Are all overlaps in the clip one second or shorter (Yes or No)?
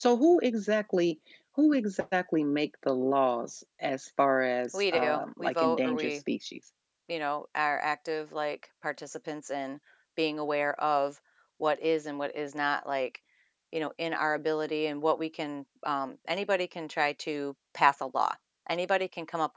No